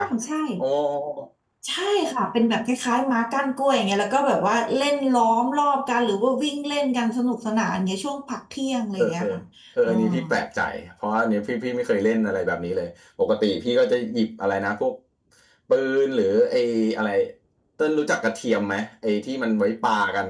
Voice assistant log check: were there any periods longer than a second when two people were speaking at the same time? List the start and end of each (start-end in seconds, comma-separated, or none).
none